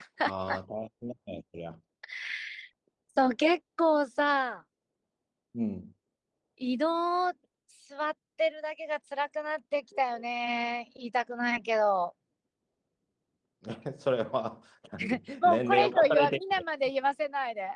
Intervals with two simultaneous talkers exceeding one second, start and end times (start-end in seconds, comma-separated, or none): 15.4-16.6